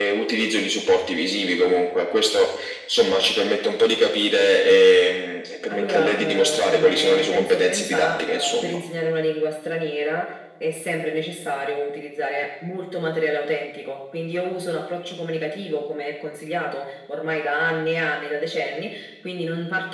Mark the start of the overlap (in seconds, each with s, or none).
5.7 s